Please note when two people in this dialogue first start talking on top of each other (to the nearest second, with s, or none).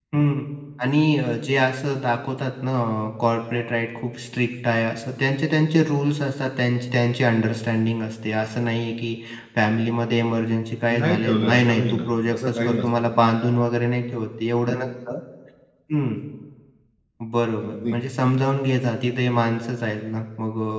11 s